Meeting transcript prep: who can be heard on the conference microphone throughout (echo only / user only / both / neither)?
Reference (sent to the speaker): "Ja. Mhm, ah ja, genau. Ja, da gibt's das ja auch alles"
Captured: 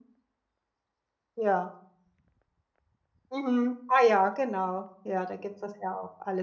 echo only